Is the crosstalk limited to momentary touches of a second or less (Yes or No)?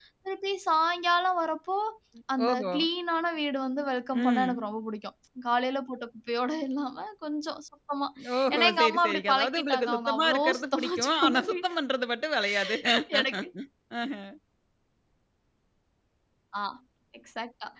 No